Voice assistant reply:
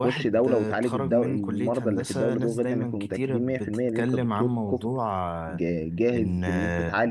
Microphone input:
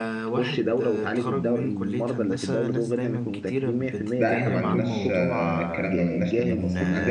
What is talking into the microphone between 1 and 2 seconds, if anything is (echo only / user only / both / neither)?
echo only